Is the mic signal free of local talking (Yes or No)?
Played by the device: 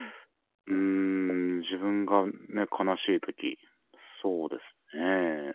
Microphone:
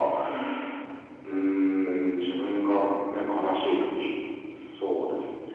Yes